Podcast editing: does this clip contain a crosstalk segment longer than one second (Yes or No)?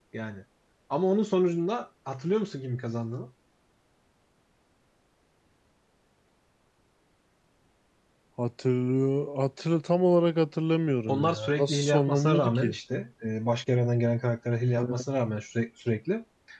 Yes